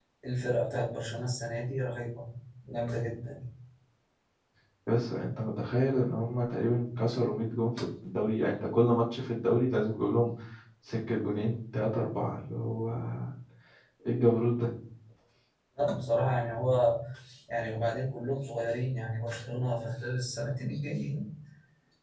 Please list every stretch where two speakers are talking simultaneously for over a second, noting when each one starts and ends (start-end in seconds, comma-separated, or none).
none